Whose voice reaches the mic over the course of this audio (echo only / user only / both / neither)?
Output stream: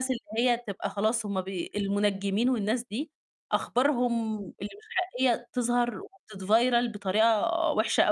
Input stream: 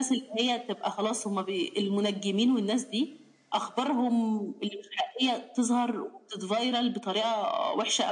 echo only